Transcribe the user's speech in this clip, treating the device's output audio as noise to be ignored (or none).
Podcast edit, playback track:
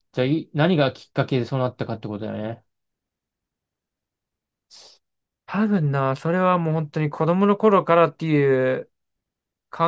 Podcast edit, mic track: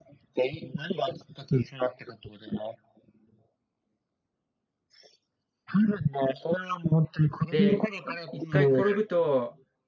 で、い一回転ぶと、